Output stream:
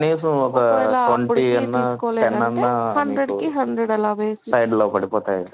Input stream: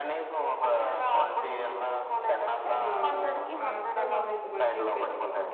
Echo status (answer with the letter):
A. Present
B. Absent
A